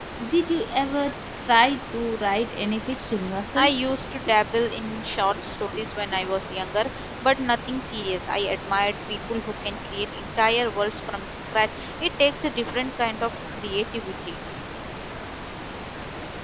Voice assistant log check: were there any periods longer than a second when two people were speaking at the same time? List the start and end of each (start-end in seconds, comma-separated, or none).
none